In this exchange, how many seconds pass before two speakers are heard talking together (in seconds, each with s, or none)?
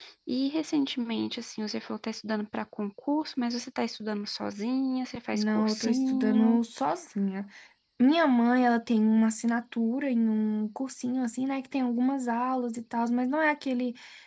5.3 s